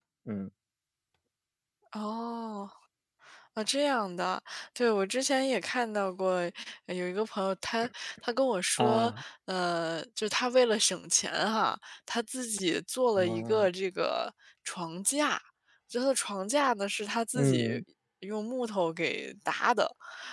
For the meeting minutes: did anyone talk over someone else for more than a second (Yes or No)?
No